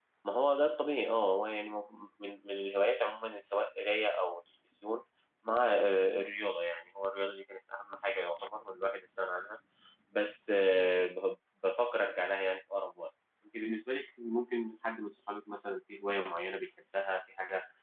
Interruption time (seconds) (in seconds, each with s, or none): none